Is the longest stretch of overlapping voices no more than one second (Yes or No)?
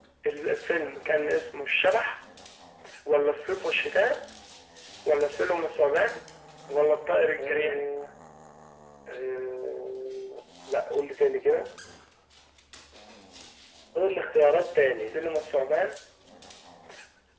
Yes